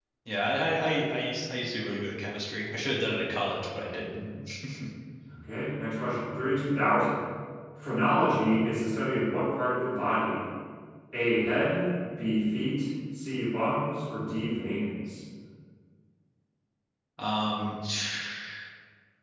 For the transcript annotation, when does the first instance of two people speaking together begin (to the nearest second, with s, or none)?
none